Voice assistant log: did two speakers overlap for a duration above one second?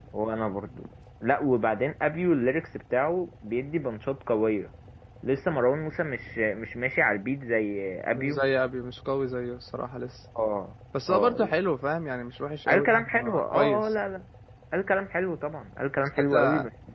Yes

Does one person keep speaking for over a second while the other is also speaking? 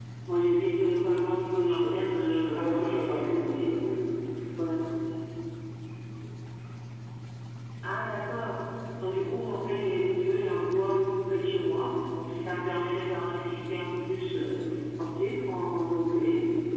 Yes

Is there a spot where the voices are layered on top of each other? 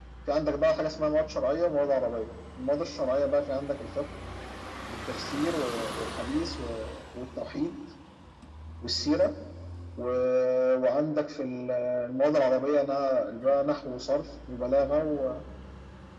No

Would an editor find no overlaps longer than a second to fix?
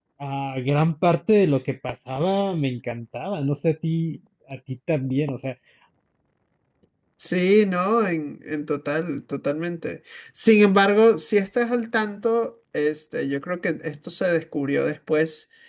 Yes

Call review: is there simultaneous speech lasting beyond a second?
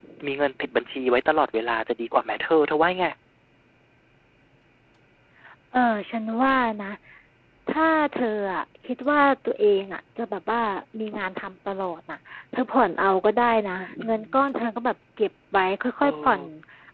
No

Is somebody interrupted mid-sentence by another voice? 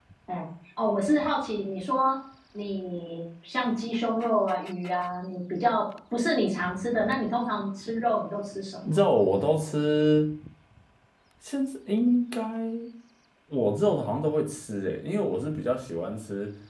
No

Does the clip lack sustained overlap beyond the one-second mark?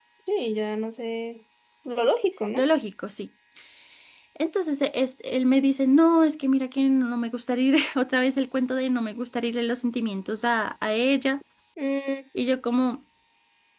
Yes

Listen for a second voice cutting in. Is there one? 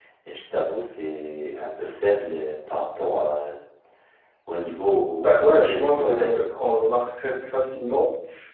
Yes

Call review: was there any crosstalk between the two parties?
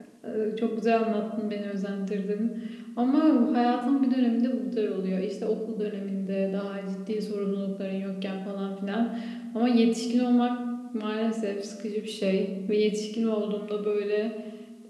No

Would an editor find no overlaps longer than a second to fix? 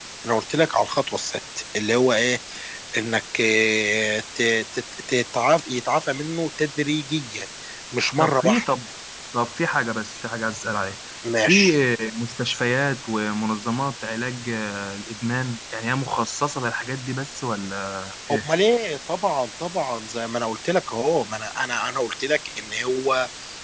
Yes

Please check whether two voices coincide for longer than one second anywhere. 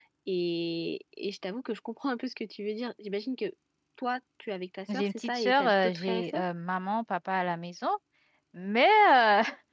Yes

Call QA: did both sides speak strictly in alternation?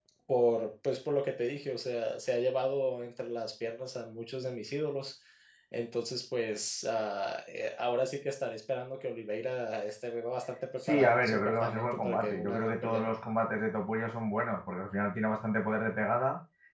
No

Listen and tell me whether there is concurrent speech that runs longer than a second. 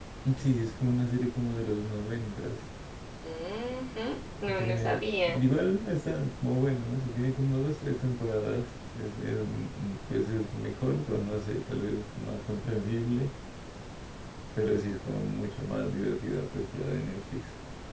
No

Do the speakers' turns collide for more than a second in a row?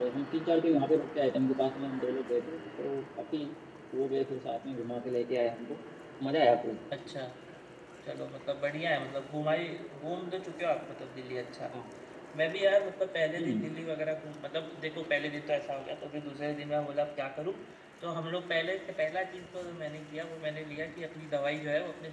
No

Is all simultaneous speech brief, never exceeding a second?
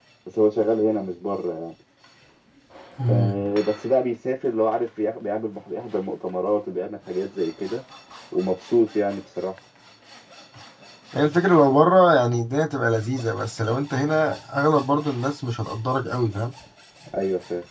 Yes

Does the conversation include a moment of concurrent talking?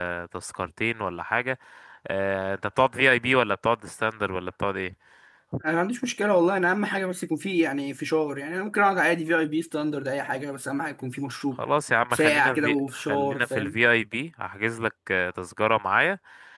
Yes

